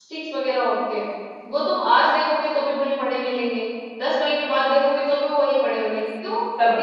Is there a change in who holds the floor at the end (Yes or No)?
Yes